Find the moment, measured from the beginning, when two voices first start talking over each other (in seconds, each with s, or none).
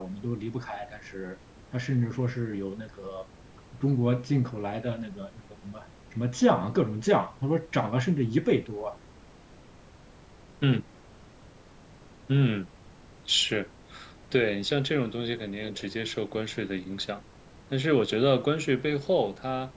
none